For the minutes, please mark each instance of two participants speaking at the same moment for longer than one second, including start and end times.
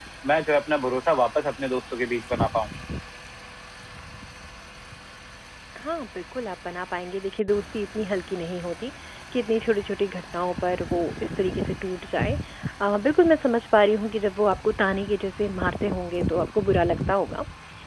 none

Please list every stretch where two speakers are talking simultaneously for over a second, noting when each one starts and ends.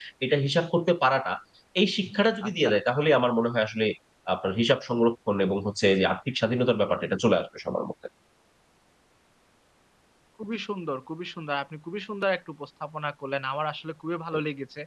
none

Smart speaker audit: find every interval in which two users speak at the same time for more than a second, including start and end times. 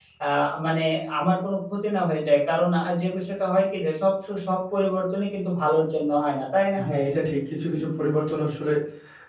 none

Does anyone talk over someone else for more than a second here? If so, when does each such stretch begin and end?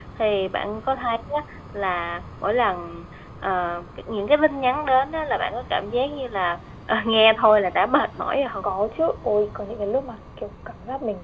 none

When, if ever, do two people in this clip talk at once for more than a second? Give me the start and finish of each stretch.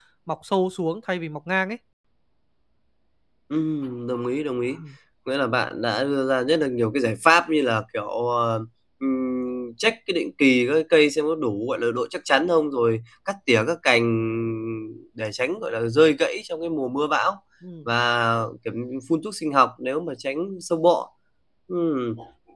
none

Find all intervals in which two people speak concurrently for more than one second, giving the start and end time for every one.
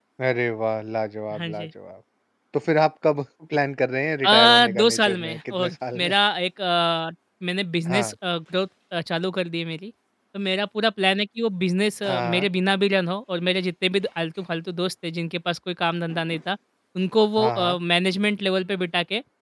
4.2-6.1

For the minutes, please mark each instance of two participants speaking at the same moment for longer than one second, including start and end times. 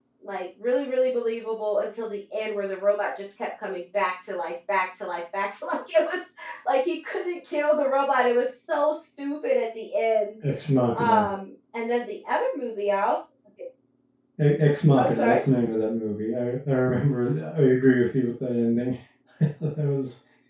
none

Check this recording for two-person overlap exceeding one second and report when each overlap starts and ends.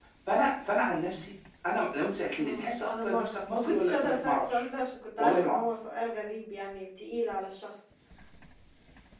2.4-4.6

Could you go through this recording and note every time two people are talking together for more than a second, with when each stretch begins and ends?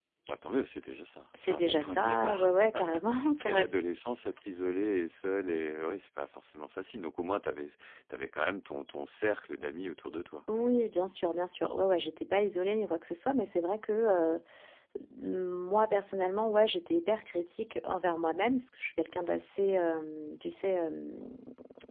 1.4-3.7

